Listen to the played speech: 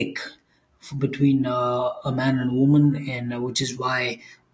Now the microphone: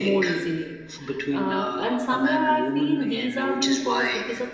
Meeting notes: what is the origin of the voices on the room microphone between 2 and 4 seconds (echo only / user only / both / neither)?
both